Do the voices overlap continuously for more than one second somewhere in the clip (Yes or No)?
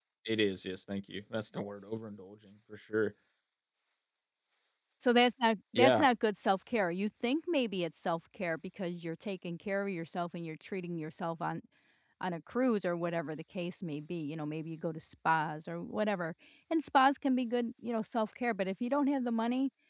No